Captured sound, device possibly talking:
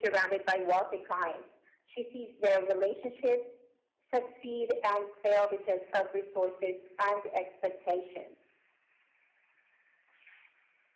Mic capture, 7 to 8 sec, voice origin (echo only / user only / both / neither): echo only